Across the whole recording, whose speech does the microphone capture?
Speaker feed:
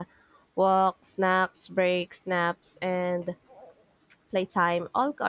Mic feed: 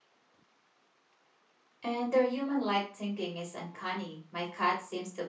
user only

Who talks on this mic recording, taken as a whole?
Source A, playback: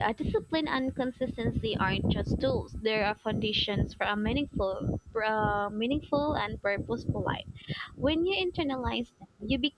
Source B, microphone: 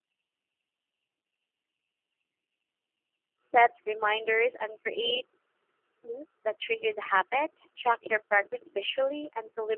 user only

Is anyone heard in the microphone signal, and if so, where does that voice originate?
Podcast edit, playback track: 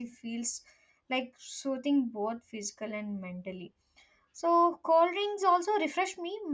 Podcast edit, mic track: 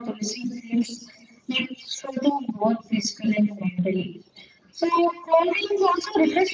echo only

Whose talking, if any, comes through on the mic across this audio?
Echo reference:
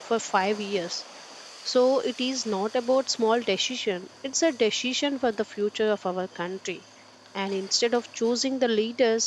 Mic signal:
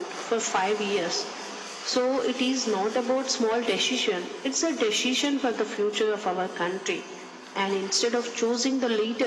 echo only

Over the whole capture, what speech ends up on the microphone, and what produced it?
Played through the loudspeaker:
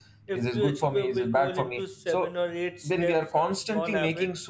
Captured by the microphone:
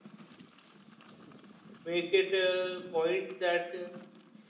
user only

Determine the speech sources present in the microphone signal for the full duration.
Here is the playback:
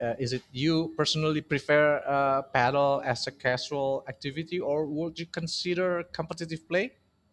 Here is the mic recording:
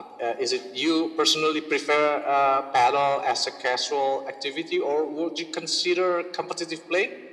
echo only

